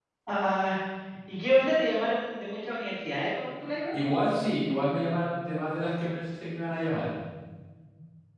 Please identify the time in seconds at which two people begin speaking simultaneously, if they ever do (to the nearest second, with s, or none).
none